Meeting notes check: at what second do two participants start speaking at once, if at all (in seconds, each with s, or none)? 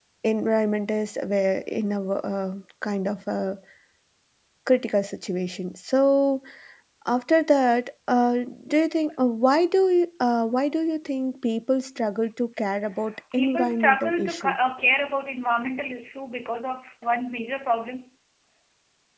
13.3 s